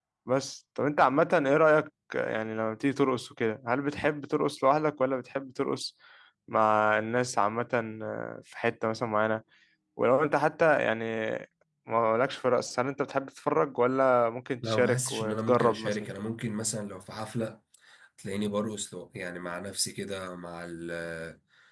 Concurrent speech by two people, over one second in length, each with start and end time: 14.6-16.1

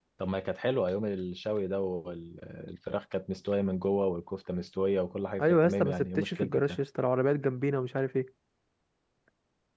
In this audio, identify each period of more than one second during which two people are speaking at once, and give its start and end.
5.4-6.8

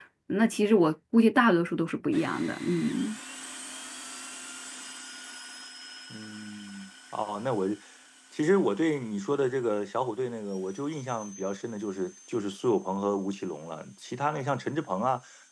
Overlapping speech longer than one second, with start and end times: none

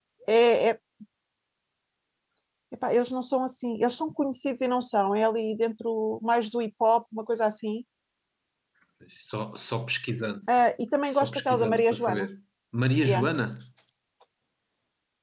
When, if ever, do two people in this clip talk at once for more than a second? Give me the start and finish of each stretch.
11.1-12.3

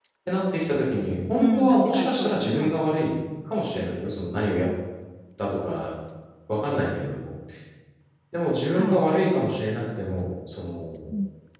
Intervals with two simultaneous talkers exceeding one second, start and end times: 1.4-2.8

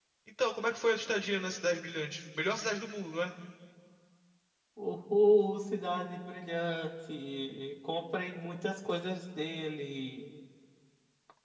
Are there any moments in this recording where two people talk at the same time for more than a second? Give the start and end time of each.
none

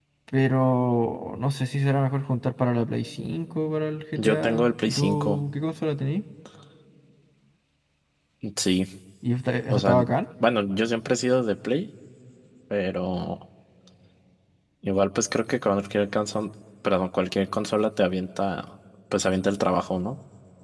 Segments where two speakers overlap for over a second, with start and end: 4.2-5.4

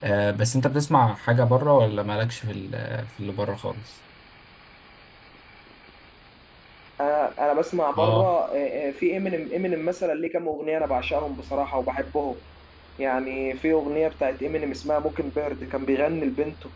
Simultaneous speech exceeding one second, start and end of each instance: none

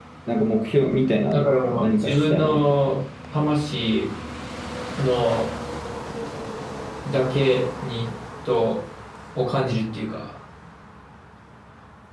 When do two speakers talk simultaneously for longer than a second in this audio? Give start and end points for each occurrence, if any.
1.3-2.8

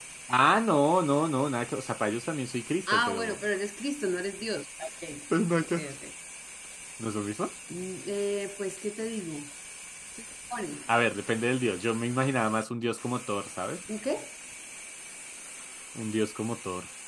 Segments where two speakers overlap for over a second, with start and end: none

